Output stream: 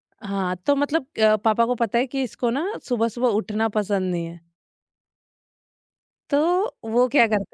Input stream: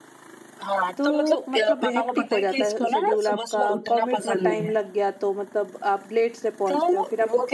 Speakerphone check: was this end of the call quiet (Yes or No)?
No